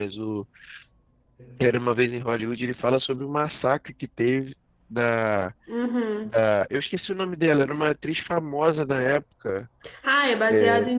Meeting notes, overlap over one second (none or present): none